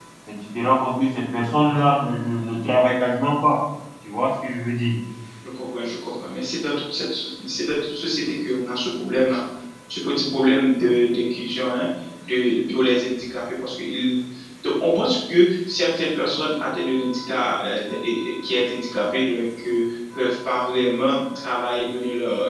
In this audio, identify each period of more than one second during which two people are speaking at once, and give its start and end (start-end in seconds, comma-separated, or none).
none